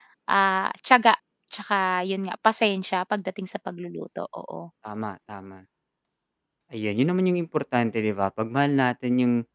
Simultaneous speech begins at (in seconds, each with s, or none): none